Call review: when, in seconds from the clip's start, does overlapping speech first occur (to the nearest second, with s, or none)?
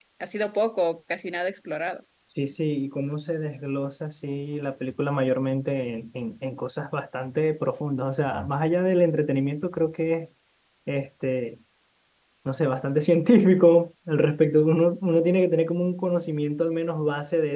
none